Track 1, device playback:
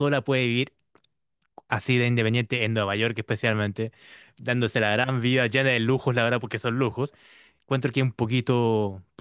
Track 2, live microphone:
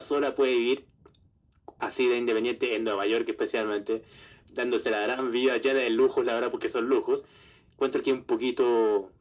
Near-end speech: none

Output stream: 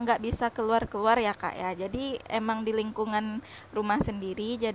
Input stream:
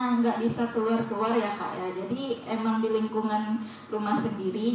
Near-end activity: none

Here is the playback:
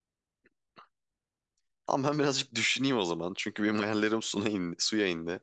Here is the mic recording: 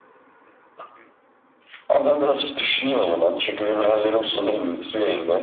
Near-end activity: none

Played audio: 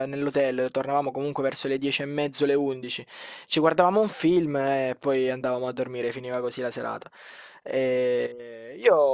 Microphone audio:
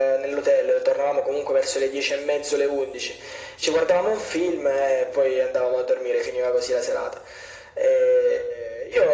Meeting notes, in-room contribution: none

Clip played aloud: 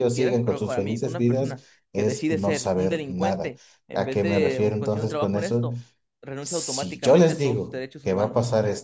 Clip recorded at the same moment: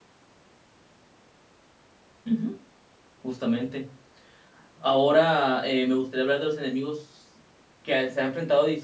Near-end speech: present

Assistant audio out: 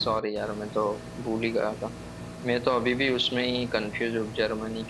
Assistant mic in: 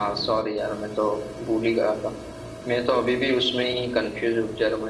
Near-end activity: none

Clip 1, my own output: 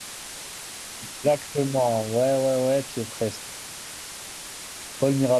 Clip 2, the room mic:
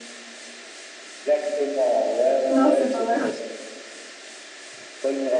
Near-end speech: present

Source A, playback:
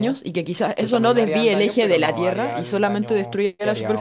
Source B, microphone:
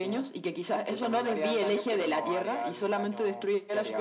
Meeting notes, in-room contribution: none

